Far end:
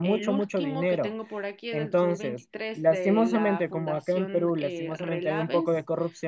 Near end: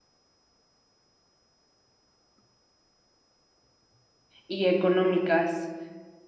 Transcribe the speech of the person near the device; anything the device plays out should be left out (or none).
y económicas.